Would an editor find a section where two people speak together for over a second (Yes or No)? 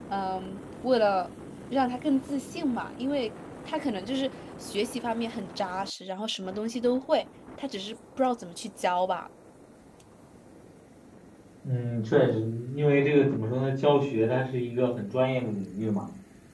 No